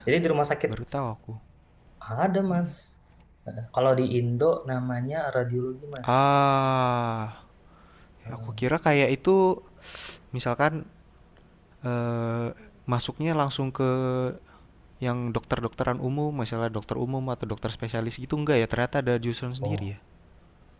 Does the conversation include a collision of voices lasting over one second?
No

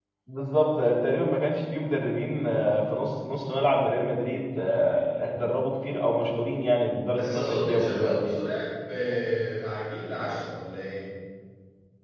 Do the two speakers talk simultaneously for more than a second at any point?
Yes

